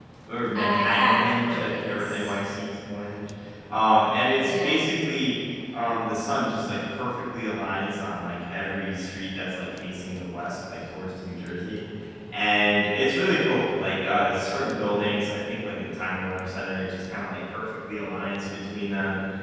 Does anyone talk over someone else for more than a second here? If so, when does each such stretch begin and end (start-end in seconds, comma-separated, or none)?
0.5-2.3